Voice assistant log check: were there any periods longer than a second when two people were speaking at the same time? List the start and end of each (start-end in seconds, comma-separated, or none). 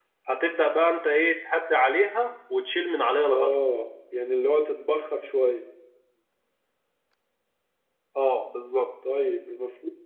none